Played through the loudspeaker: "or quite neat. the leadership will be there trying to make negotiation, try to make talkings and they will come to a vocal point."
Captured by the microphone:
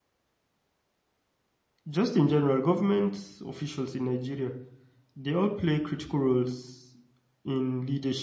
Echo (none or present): none